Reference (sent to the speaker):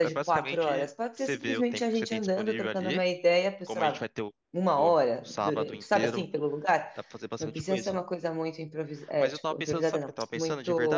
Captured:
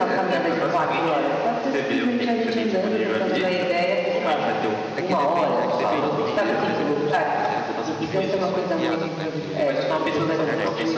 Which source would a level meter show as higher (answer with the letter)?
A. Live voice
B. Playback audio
B